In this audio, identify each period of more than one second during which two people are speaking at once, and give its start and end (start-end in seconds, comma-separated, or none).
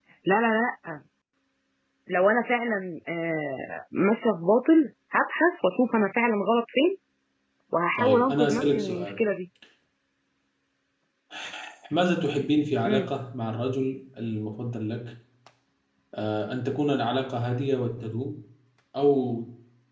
8.0-9.2